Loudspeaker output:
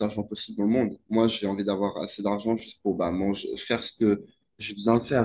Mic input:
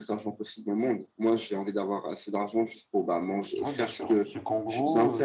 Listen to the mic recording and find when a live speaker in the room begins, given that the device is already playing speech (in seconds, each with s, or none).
3.6 s